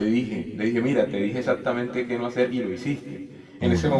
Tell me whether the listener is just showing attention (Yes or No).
Yes